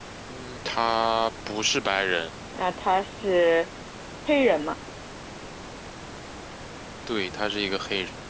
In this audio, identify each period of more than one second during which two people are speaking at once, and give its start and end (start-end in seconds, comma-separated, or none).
none